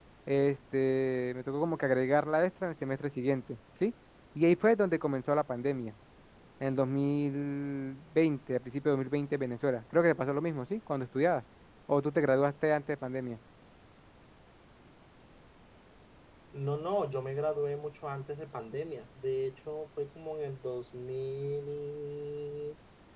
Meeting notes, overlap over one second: none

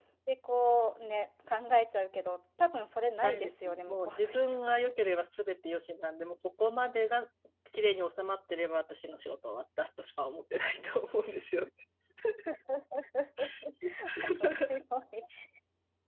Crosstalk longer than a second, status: present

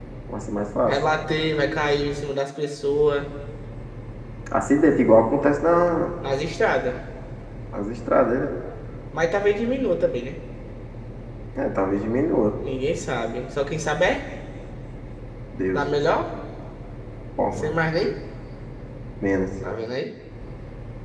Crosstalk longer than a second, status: none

